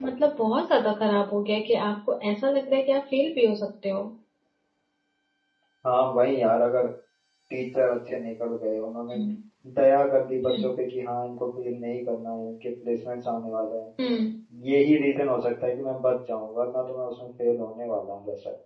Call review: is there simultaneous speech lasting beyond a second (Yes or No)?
No